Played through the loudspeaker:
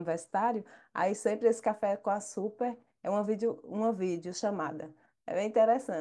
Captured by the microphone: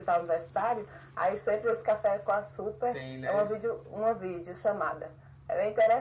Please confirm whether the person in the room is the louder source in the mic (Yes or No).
No